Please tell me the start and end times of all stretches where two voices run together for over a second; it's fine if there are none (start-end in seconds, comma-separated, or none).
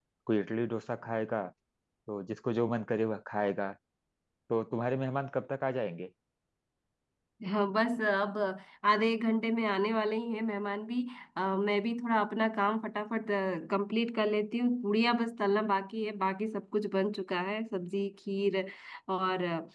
none